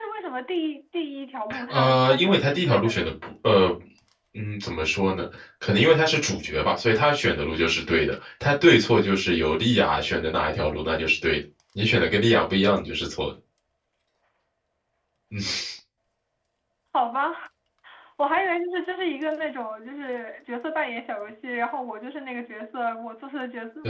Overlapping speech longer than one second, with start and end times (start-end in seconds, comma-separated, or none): 1.7-3.1